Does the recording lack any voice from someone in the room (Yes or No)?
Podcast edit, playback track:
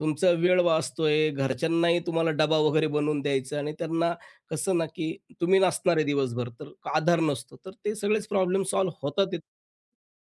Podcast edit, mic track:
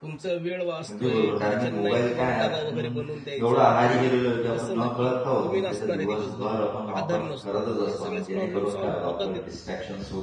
No